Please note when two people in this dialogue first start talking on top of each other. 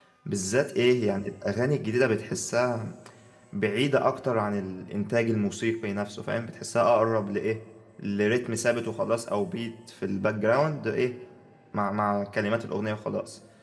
none

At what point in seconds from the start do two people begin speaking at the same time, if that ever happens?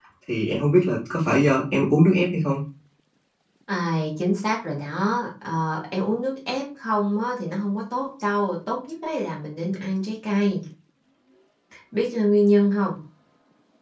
none

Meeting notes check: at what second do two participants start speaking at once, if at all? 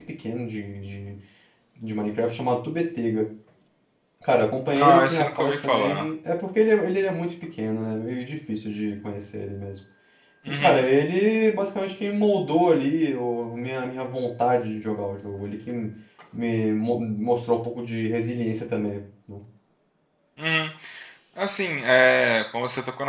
4.8 s

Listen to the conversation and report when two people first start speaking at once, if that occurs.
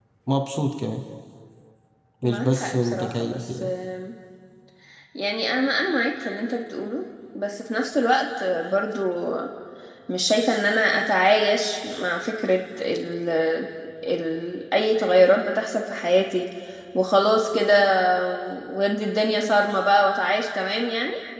2.2 s

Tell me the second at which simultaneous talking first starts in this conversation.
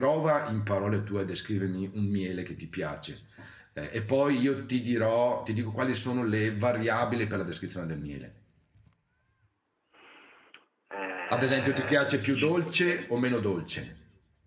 11.3 s

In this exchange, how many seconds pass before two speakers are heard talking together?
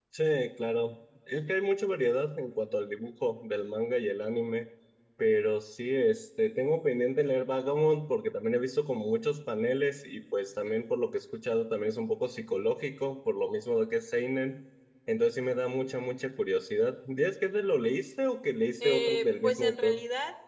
18.8 s

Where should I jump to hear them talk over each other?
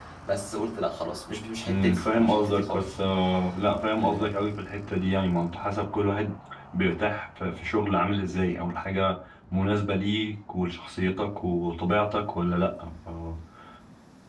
1.6 s

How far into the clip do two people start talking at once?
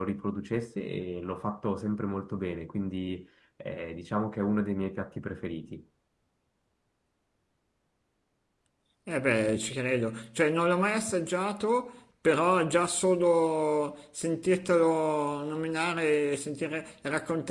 none

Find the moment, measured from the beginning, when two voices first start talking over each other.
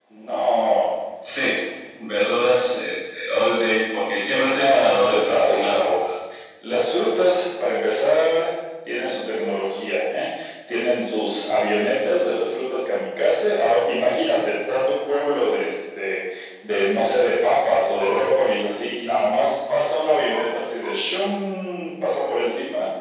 4.5 s

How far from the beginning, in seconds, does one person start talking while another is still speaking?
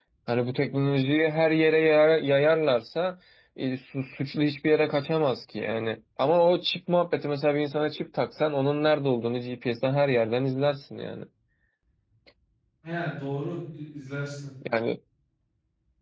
none

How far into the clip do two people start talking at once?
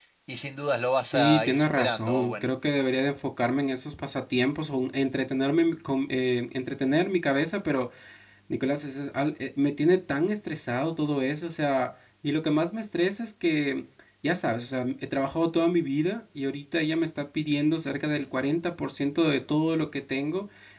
1.1 s

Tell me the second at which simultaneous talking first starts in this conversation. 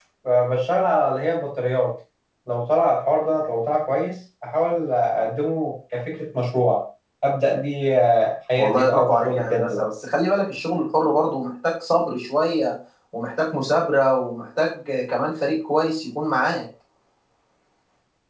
8.6 s

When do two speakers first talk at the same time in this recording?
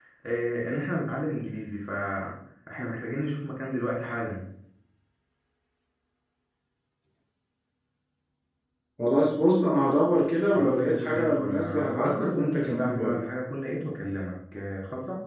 10.5 s

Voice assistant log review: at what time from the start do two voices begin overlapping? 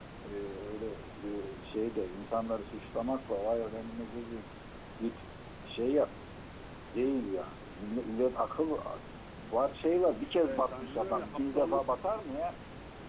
10.4 s

